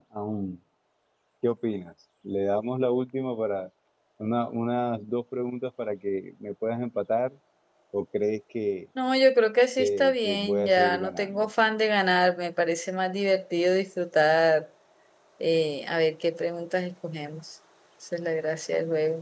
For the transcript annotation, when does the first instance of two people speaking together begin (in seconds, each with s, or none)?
9.8 s